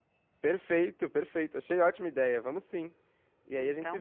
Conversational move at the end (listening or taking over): listening